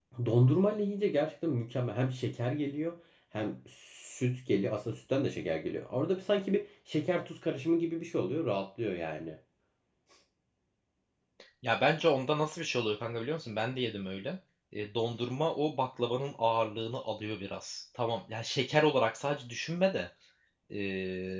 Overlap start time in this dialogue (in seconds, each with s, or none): none